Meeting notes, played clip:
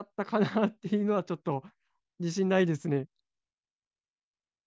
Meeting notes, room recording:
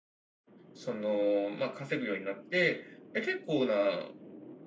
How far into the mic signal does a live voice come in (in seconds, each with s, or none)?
0.7 s